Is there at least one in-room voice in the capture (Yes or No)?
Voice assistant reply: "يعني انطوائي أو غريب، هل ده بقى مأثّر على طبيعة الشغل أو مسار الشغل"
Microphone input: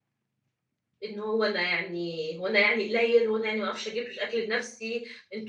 Yes